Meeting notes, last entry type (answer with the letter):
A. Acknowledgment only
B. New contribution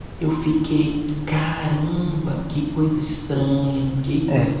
B